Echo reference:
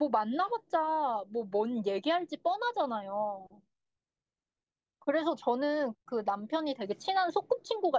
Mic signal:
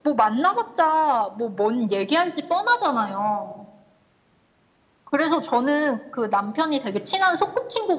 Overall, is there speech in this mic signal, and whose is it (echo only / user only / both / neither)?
echo only